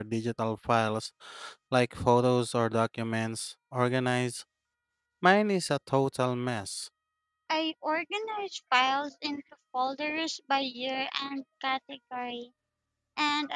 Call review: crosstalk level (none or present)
none